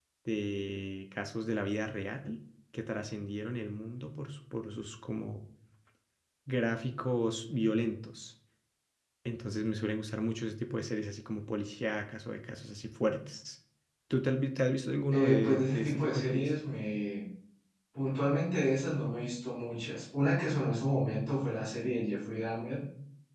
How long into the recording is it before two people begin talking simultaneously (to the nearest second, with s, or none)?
15 s